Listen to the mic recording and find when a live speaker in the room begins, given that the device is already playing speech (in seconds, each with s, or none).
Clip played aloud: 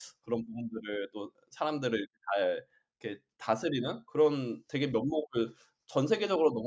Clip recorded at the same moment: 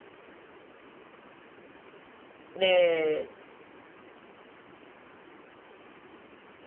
2.5 s